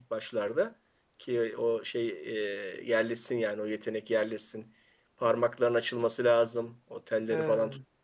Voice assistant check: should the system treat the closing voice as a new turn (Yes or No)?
No